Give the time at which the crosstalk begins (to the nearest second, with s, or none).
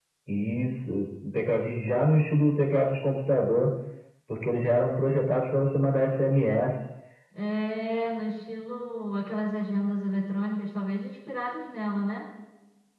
none